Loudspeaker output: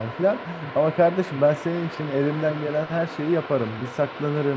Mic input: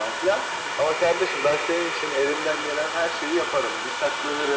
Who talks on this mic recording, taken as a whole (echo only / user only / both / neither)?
echo only